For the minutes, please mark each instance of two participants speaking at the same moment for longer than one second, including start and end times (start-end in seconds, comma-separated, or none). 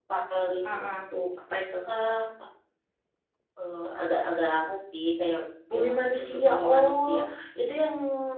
5.7-7.1